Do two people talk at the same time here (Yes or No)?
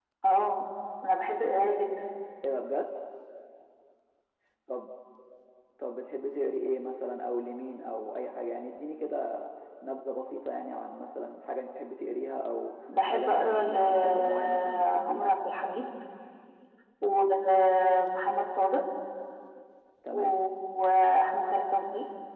Yes